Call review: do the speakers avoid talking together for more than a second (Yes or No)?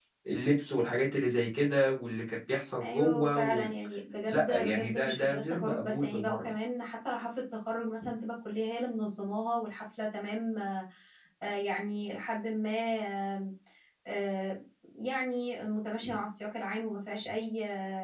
No